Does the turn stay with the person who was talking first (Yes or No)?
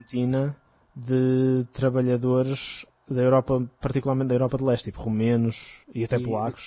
No